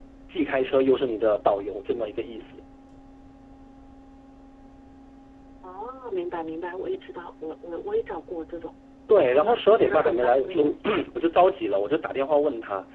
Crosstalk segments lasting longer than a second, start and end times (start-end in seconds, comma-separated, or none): 9.2-10.8